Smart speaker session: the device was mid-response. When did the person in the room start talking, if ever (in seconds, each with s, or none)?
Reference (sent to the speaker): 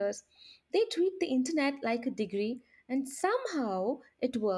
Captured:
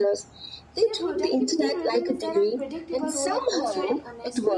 0.8 s